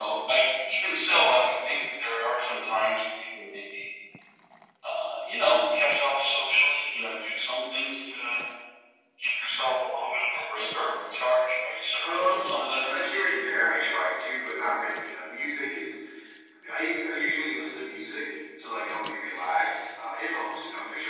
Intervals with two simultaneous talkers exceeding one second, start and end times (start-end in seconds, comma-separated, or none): 12.0-13.3